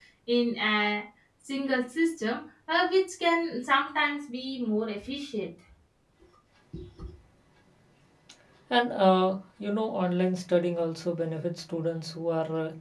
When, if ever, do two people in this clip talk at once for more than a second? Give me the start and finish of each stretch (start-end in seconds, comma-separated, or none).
none